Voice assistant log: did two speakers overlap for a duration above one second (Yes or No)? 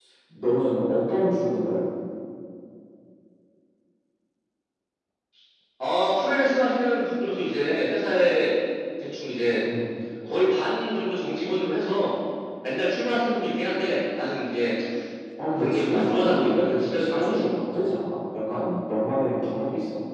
Yes